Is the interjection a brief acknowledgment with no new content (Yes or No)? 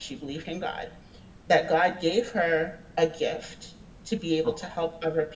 Yes